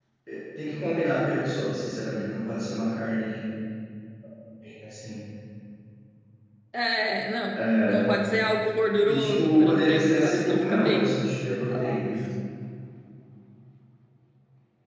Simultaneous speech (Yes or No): Yes